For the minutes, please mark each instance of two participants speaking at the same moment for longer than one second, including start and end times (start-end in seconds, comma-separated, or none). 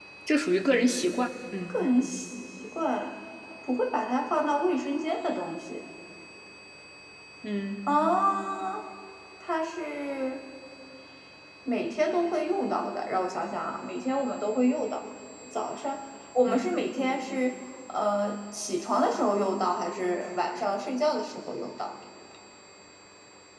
none